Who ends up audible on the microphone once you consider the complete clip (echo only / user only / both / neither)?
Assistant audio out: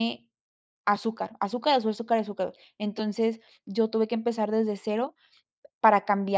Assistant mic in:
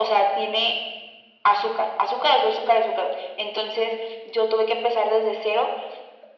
echo only